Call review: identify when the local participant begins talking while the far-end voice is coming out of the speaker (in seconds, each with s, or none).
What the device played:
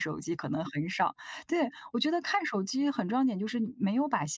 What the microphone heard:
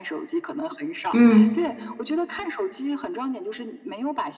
1.1 s